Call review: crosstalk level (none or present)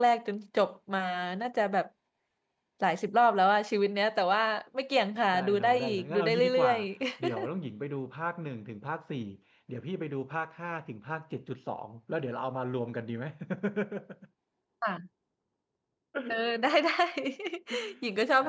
present